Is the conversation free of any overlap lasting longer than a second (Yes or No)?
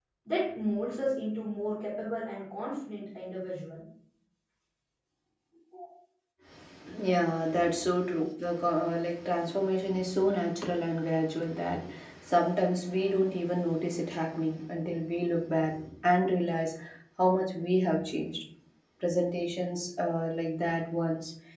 Yes